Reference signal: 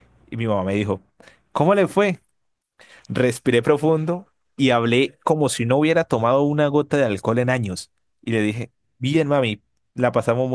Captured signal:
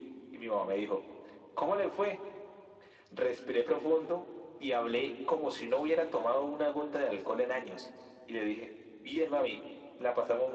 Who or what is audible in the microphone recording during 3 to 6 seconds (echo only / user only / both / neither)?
echo only